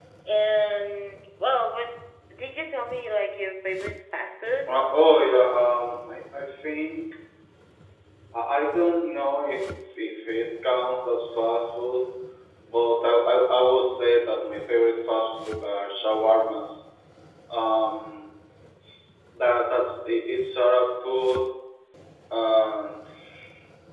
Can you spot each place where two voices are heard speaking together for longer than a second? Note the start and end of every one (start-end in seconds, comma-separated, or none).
none